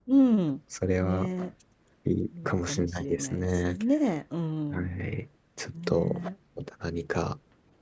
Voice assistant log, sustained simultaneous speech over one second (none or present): present